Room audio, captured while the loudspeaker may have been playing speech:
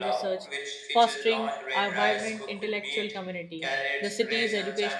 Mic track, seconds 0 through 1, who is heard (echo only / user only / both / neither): both